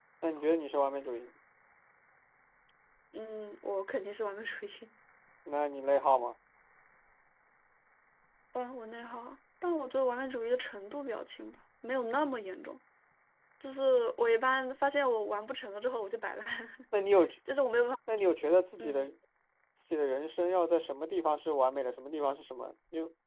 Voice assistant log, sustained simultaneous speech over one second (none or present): none